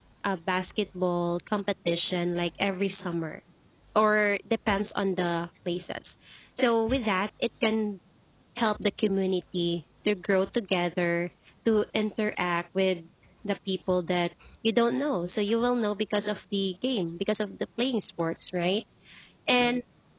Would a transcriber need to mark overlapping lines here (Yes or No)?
No